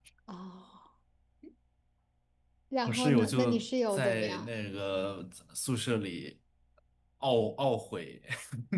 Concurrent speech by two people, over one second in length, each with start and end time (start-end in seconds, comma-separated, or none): 2.9-4.5